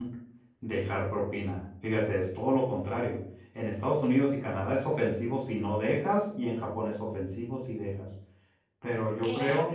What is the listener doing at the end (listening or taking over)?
listening